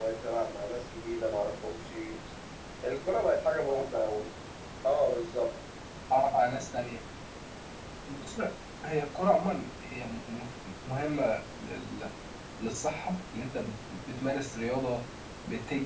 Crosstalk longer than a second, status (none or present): none